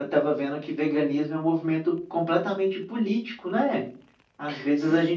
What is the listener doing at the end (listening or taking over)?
listening